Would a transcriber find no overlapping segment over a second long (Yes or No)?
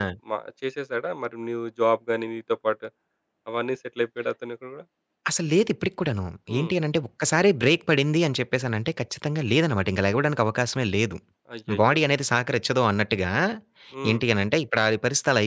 Yes